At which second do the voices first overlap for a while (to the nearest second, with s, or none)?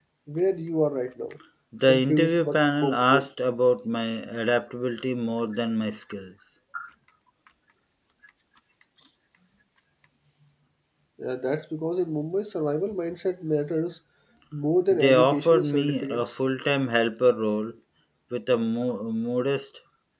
2 s